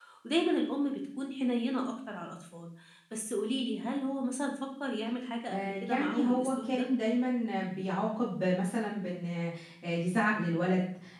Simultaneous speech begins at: 5 s

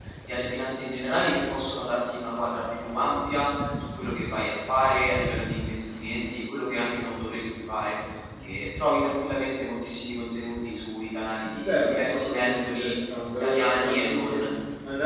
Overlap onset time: 12 s

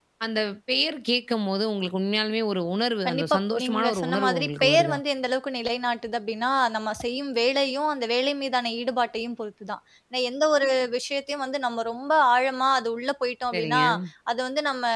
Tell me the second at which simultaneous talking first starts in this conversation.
3 s

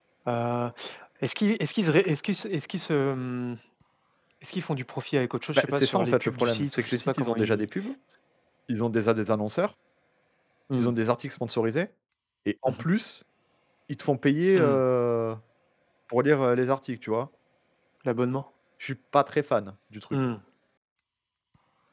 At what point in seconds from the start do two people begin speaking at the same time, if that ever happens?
6 s

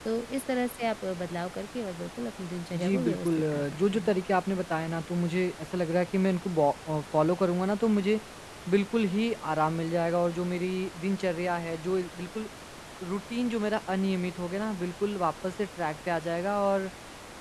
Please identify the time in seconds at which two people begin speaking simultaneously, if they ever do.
3 s

